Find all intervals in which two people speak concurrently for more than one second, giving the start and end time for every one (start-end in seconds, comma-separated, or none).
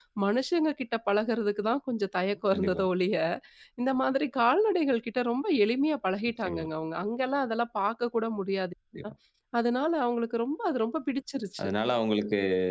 none